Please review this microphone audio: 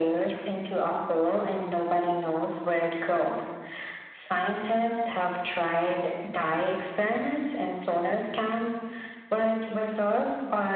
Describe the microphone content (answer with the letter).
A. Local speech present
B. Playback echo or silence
B